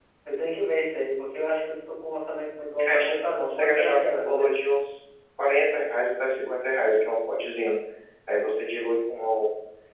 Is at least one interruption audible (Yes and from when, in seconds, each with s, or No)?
Yes, from 2.7 s